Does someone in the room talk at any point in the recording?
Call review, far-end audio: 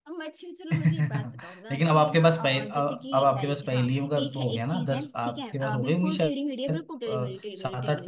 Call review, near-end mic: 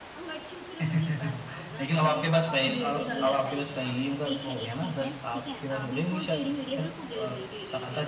Yes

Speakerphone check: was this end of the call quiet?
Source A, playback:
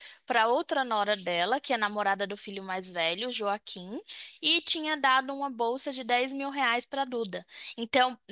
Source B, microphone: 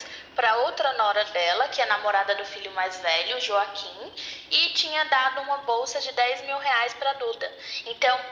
Yes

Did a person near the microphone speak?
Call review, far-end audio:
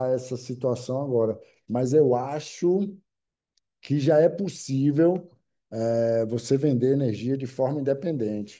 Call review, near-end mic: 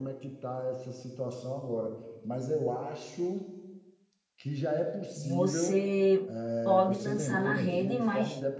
Yes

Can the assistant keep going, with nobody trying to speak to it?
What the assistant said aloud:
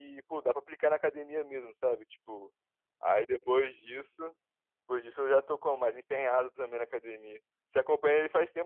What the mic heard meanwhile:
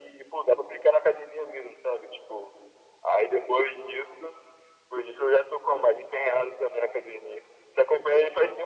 Yes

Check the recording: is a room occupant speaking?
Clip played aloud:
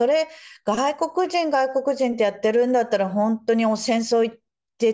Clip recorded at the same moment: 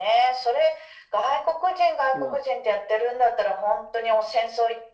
Yes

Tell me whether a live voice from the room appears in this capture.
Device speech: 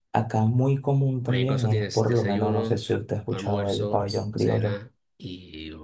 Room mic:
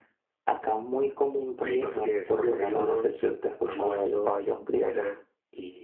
No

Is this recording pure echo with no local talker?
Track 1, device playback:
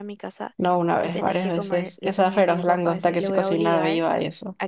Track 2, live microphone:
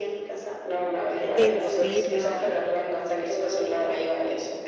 No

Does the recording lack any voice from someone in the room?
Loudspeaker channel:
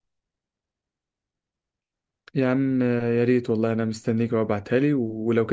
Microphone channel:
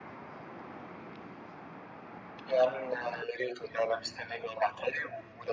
Yes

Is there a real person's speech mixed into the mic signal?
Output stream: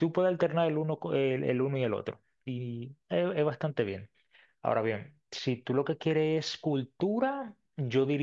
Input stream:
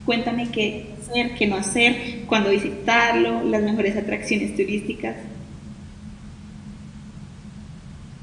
Yes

